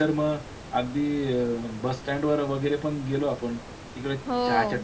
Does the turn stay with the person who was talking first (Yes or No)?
Yes